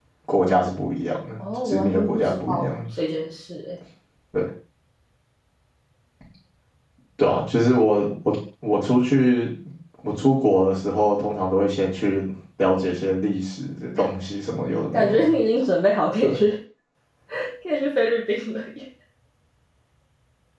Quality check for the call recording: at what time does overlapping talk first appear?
1.4 s

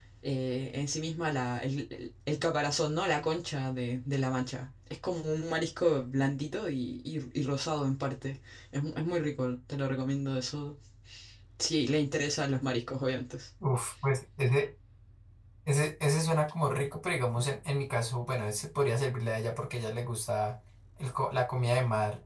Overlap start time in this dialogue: none

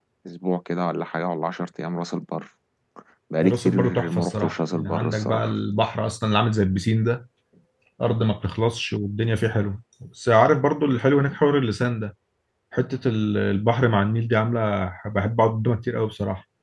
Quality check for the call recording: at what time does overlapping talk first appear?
3.4 s

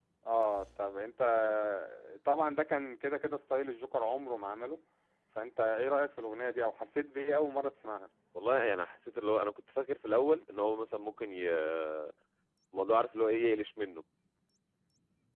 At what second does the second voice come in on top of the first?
none

